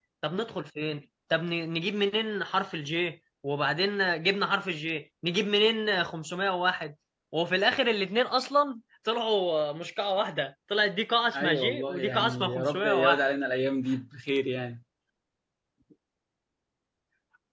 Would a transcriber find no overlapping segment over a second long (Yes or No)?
No